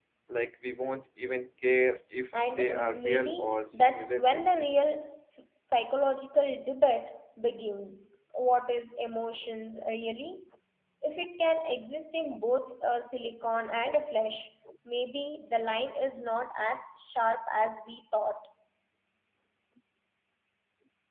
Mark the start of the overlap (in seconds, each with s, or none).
2.6 s